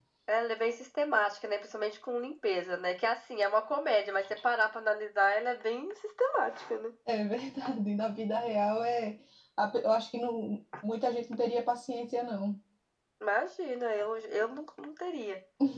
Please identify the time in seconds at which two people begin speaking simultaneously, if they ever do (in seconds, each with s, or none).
none